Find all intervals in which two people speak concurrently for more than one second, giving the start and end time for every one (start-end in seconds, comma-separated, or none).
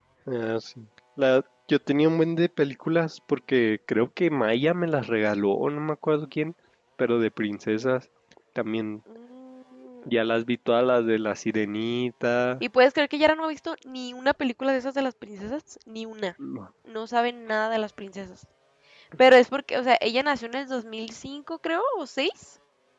none